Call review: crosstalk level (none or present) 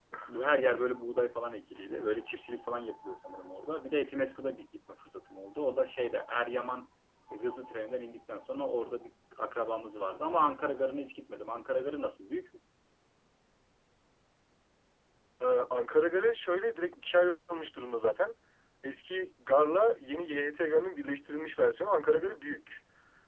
none